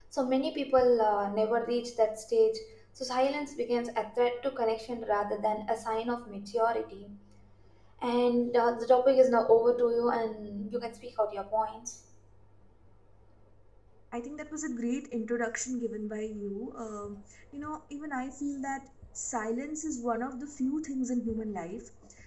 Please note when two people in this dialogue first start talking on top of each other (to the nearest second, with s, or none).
none